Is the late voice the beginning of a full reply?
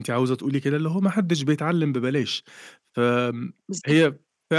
No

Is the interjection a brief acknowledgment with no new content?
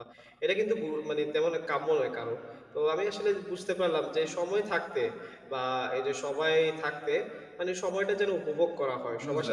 Yes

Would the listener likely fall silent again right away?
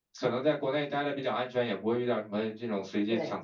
Yes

